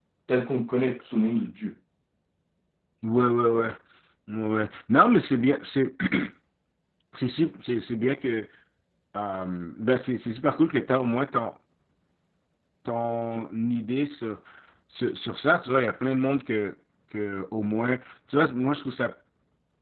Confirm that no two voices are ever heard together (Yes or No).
Yes